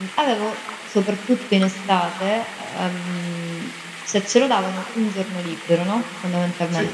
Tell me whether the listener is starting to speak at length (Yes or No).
No